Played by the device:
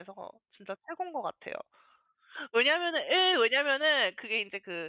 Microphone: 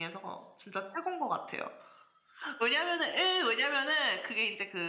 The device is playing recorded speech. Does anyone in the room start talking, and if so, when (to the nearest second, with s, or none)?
none